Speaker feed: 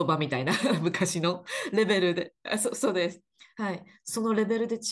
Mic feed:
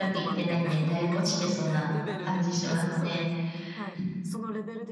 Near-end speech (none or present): present